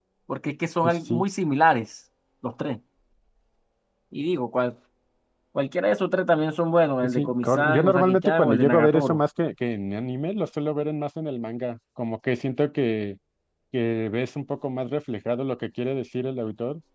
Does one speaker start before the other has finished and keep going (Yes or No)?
Yes